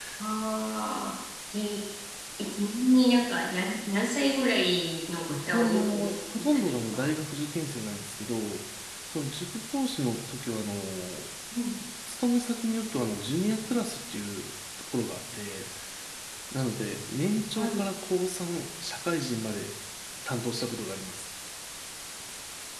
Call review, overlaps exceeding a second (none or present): present